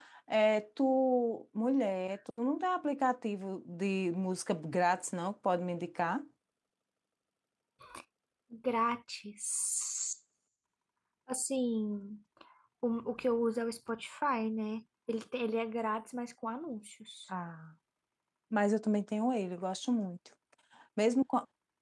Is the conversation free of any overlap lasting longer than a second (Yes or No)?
Yes